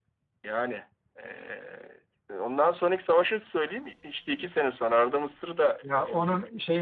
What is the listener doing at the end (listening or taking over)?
taking over